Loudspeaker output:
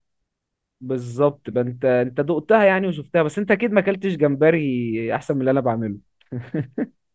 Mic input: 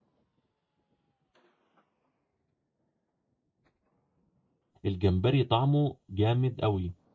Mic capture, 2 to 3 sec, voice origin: neither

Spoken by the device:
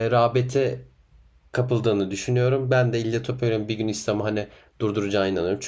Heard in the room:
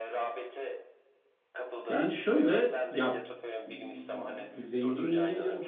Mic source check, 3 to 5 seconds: both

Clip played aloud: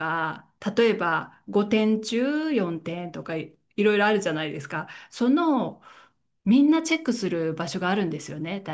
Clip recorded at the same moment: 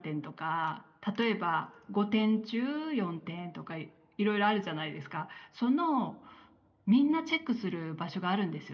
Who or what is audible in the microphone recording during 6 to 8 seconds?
echo only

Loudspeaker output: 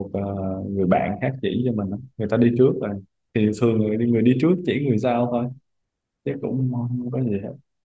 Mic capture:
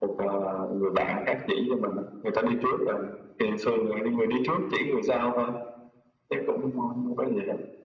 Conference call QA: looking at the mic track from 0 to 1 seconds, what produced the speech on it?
echo only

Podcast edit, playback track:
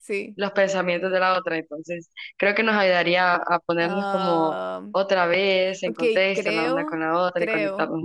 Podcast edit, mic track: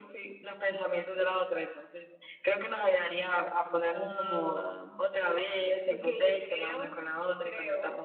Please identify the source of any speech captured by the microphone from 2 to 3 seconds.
echo only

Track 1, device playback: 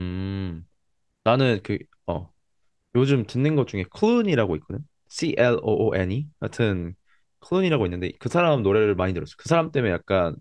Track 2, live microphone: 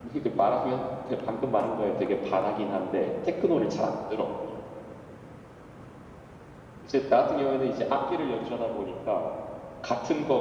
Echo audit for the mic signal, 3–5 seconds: user only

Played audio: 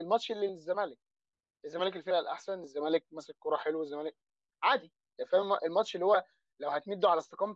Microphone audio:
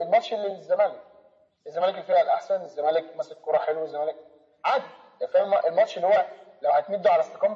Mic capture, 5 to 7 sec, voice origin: echo only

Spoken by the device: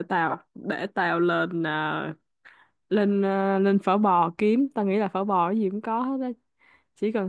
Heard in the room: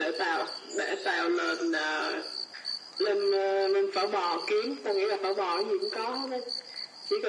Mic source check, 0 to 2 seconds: echo only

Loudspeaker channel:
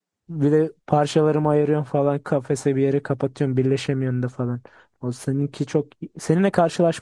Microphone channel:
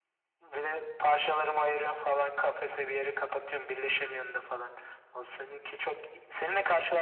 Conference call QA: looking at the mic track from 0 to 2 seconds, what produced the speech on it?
echo only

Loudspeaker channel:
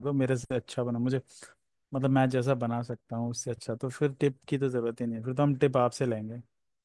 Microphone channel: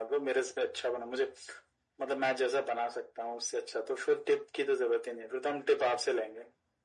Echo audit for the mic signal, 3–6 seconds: echo only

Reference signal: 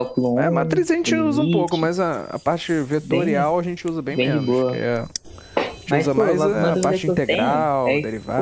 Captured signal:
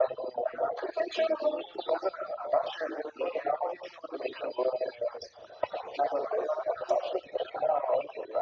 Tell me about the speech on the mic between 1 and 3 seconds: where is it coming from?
echo only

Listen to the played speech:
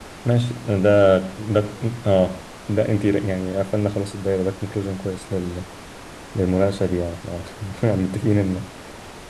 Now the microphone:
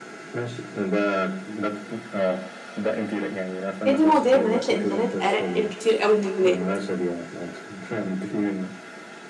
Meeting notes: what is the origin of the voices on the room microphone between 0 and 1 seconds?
echo only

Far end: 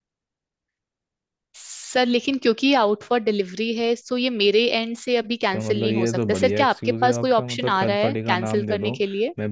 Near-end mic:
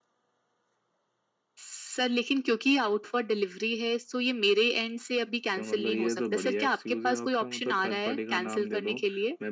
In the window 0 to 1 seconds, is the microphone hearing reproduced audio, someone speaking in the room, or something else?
neither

